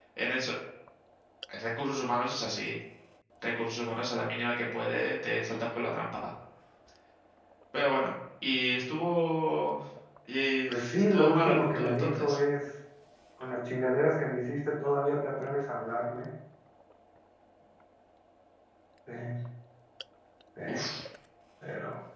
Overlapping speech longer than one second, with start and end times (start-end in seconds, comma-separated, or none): 10.7-12.4